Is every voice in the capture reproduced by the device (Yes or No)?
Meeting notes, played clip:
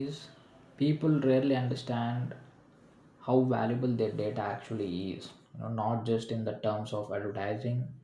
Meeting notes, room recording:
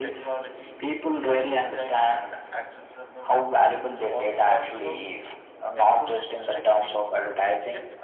No